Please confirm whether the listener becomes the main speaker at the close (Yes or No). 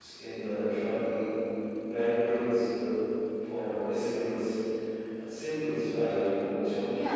Yes